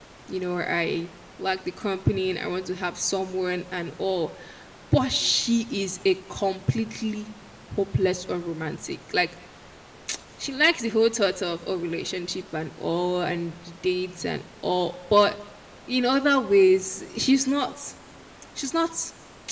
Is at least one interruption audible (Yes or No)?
No